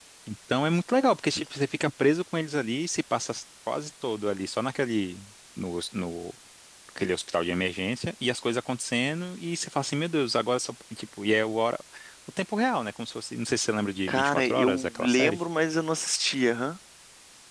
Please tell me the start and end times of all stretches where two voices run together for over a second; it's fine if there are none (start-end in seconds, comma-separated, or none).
14.1-15.4